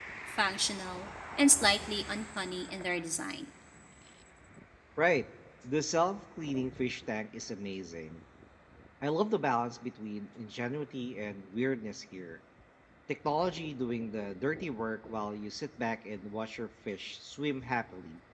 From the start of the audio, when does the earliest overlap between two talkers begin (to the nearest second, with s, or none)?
none